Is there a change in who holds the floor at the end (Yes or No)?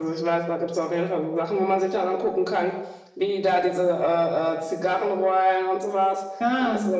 No